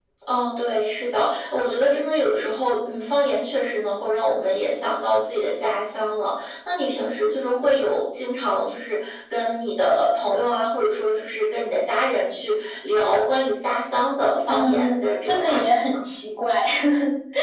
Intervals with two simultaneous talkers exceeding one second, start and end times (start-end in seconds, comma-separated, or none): 14.5-16.0